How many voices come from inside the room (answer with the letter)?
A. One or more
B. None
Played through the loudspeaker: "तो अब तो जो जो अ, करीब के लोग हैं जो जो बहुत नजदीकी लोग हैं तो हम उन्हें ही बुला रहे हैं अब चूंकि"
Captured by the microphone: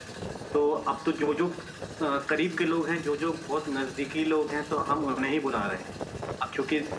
B